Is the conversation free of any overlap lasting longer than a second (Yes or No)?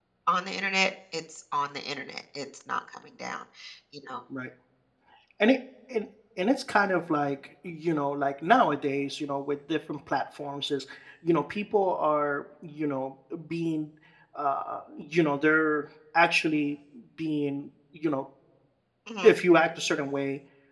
Yes